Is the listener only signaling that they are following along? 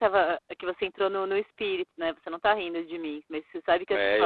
No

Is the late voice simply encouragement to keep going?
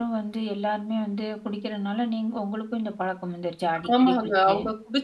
No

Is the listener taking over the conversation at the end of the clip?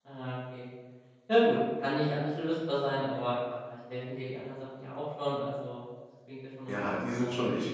Yes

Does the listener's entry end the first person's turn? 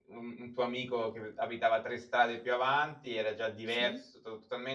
No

